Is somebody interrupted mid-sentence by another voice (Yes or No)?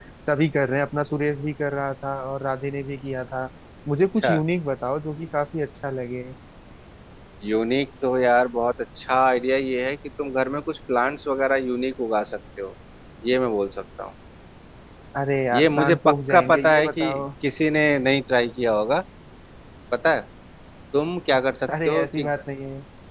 Yes